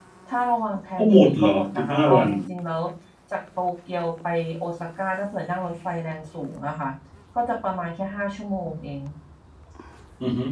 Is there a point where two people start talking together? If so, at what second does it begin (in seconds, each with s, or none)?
1.0 s